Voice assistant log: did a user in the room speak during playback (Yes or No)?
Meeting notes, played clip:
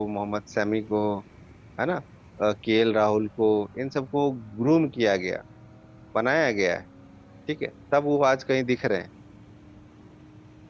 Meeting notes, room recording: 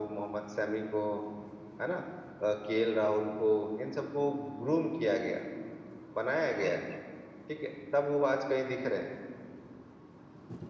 Yes